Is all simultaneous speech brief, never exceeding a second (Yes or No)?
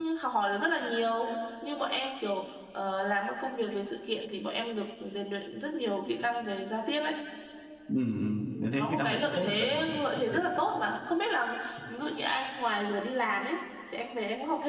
No